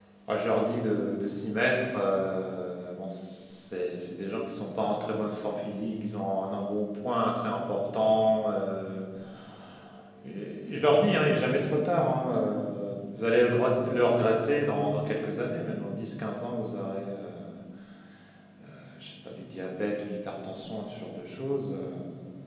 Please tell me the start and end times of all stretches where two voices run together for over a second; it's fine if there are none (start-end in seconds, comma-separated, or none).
none